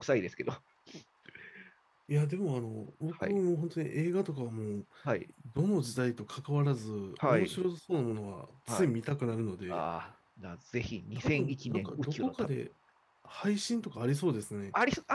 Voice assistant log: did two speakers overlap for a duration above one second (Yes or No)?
Yes